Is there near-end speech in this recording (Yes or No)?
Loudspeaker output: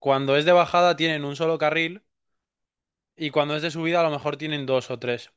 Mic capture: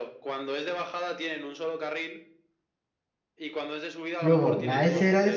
Yes